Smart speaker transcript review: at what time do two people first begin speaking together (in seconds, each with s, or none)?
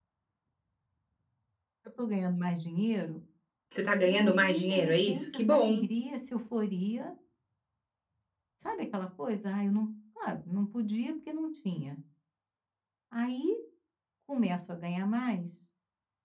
4.0 s